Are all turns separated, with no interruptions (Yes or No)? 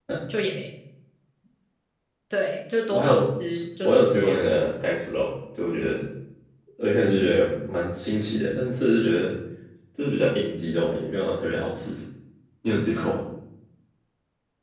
No